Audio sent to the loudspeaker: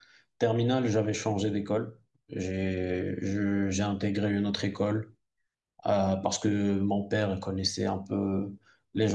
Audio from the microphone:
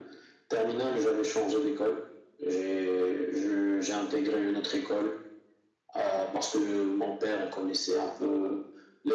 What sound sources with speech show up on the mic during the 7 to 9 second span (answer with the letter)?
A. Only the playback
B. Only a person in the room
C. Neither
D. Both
A